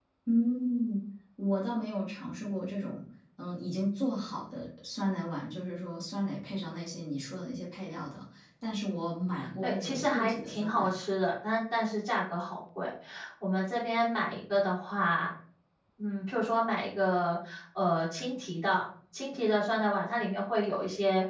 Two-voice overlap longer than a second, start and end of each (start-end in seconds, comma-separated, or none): 9.6-10.9